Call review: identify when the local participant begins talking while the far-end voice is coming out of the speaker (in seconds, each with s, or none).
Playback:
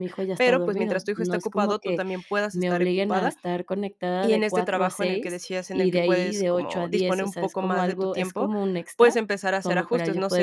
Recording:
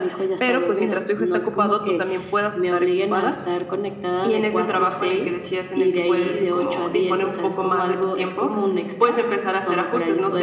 none